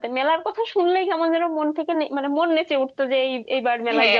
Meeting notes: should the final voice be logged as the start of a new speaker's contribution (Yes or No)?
Yes